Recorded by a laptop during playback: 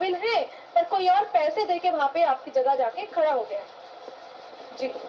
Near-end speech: none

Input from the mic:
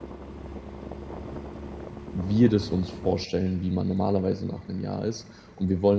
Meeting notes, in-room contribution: present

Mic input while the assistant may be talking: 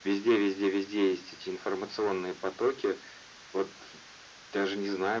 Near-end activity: none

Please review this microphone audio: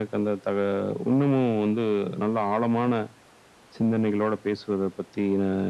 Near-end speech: none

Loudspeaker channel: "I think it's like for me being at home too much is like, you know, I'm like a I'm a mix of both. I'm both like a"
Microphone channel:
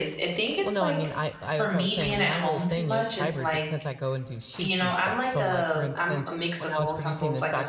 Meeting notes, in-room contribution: present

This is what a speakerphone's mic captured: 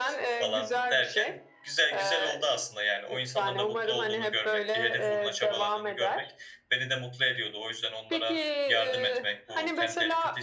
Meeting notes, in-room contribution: present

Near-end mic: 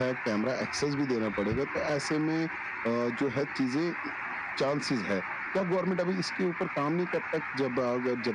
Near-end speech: none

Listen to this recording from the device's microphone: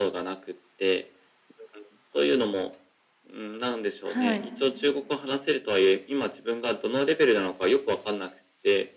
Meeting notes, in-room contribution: present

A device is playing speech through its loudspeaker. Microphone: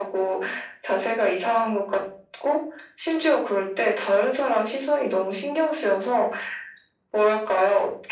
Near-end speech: none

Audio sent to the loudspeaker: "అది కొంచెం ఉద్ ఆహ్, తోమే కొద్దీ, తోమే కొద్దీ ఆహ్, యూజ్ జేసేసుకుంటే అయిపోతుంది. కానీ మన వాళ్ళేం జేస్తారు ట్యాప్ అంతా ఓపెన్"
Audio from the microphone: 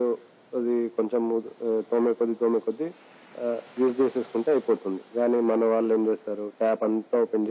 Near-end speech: none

